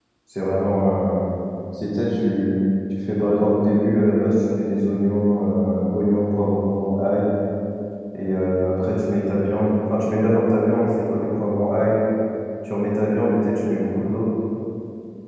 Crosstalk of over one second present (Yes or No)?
No